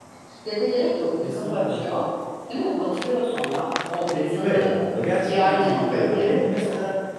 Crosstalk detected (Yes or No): Yes